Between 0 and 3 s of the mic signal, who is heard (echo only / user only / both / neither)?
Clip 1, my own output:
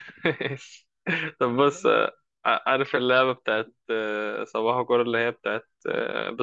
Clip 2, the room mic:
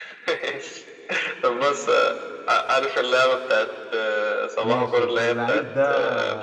echo only